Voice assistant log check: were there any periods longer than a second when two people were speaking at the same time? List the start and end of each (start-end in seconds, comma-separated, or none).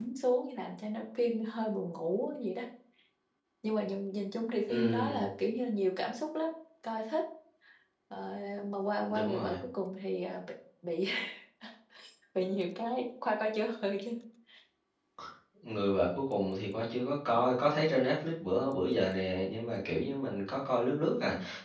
none